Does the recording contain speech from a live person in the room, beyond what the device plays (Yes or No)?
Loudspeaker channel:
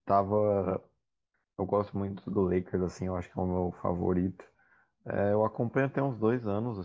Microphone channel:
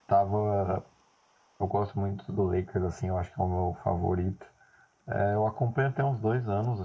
No